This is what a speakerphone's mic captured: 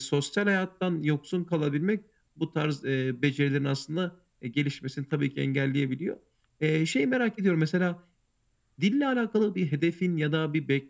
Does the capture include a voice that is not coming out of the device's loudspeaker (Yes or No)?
No